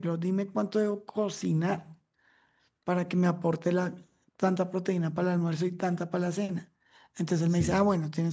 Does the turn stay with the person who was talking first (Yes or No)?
Yes